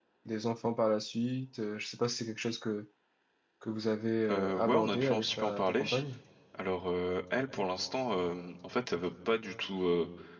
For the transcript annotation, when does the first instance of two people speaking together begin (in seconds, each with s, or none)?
4.3 s